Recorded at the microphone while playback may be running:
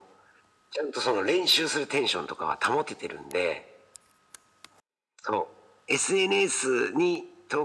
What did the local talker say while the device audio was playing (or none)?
none